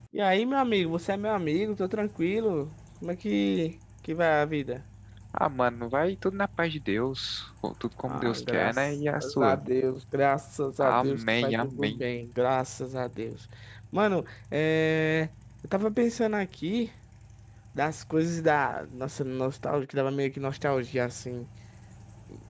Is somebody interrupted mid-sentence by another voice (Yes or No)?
Yes